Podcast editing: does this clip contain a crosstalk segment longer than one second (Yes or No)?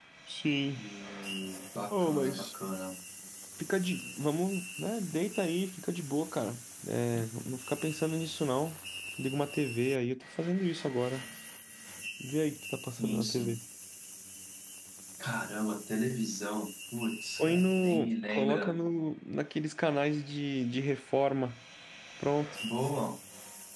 Yes